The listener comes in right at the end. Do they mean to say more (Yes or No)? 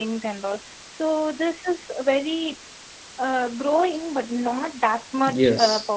Yes